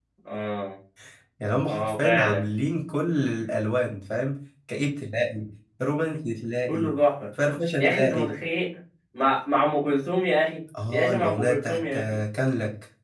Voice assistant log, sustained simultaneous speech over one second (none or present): present